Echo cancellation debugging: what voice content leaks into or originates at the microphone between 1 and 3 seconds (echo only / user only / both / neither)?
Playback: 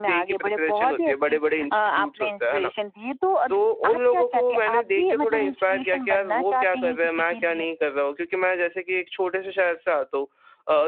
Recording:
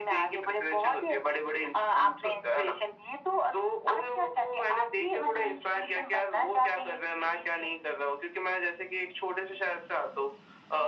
echo only